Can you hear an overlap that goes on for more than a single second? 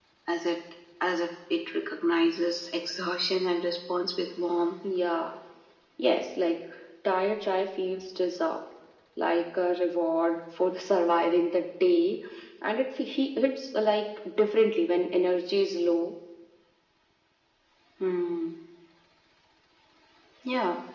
No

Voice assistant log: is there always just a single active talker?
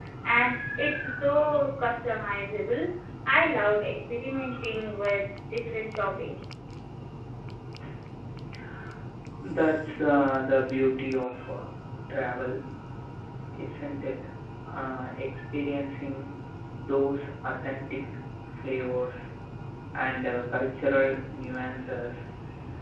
Yes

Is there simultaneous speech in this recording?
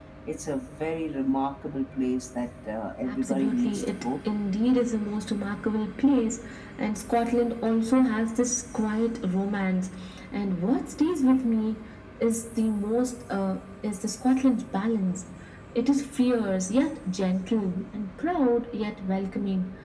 Yes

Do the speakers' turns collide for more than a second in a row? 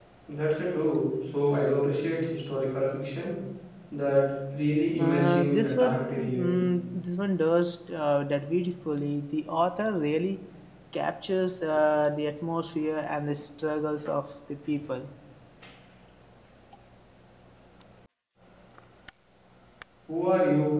Yes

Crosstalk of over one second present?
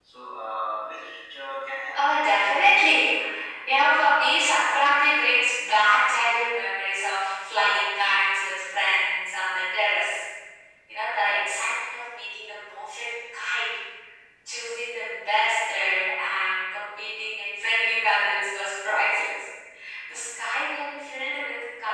Yes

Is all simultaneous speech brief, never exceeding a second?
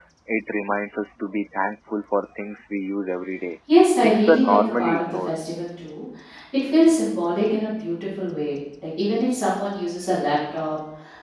No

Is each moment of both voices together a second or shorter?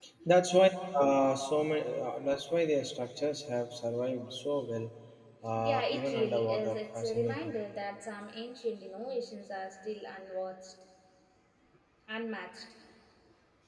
No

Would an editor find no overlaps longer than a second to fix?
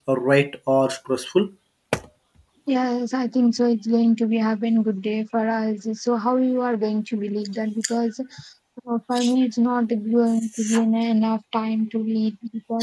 Yes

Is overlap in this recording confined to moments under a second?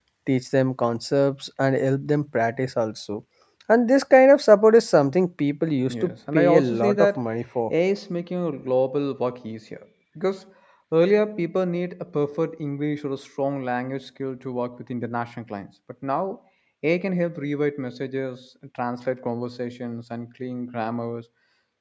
No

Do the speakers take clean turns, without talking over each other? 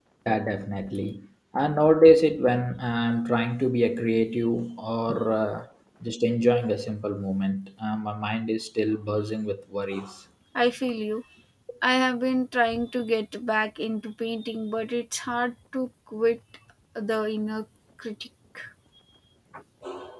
Yes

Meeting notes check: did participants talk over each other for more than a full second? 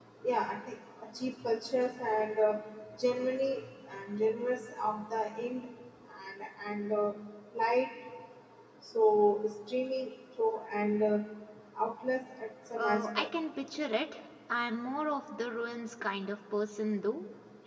No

